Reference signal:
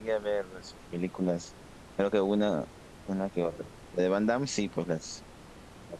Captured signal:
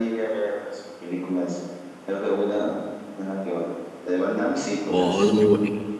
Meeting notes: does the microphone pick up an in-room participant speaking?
Yes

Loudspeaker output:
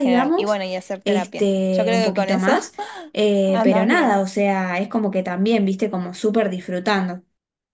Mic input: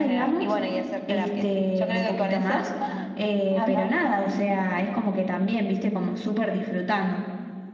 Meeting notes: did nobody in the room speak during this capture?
Yes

